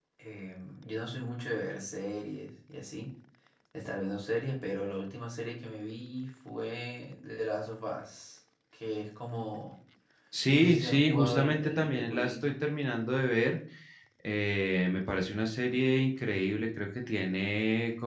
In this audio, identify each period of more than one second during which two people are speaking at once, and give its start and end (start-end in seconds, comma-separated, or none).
10.5-12.5